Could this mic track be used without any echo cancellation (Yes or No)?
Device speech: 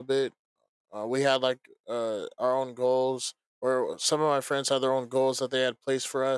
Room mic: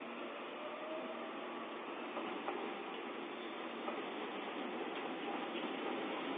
Yes